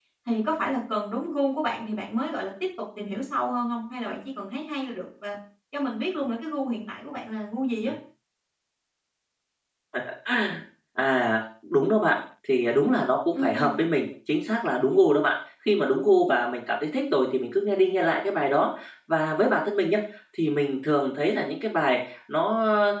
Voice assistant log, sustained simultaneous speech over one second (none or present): none